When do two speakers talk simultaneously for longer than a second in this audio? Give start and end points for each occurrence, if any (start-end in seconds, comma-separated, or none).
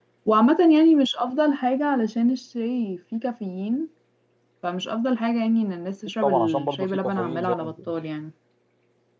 6.2-7.9